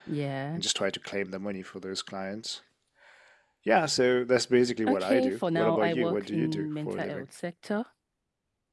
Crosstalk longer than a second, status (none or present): present